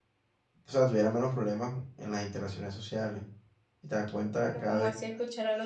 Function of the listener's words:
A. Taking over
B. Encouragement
A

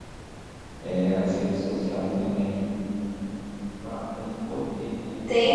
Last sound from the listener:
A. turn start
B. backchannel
A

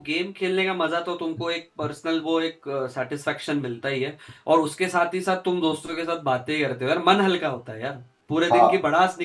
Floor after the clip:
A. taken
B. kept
B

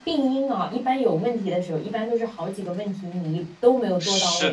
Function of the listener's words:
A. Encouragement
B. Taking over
B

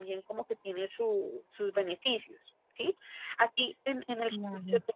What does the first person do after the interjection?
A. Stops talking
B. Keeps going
B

